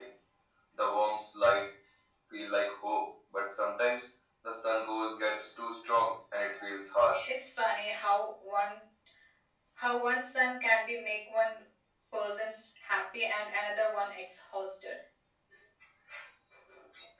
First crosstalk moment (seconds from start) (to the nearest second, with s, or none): none